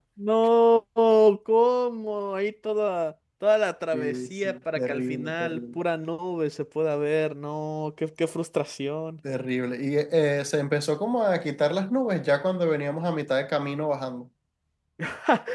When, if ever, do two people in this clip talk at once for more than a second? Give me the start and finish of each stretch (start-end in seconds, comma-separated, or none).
3.9-5.6